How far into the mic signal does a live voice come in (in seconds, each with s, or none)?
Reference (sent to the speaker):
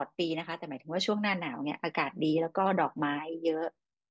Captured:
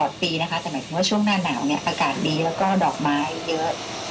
none